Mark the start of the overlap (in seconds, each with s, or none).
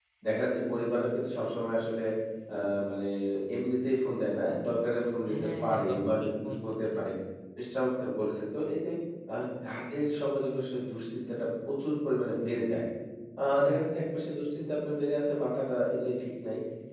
5.3 s